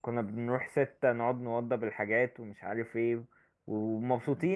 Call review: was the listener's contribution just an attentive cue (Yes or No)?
Yes